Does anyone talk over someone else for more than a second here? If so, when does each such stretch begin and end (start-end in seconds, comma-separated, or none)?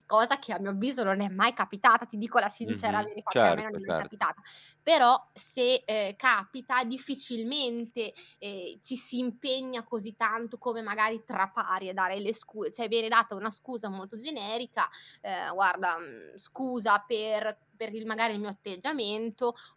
2.6-4.1